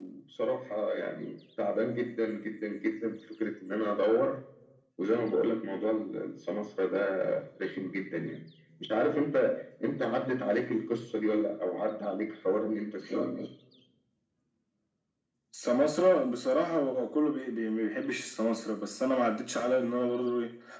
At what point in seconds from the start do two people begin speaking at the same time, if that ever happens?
none

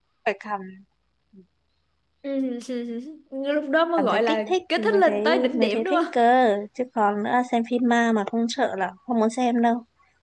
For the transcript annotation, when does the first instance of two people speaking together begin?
4.0 s

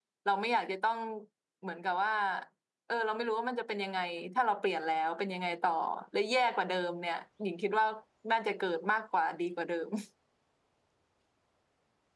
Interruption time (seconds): none

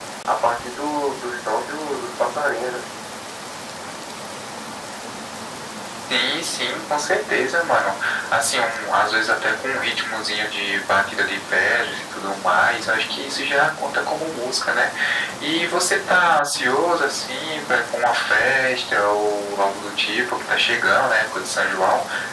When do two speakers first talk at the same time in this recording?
none

